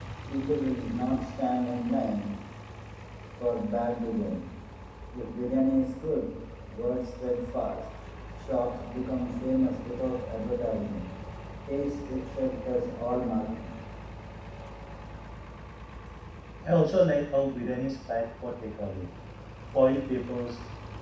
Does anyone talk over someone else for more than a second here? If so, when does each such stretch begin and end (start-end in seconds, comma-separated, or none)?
none